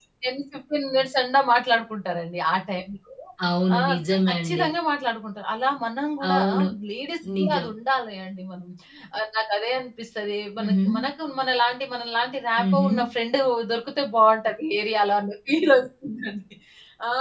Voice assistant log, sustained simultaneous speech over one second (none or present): none